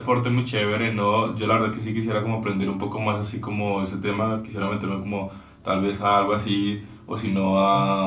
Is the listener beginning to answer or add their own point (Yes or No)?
No